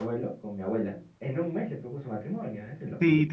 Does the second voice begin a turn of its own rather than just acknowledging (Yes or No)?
Yes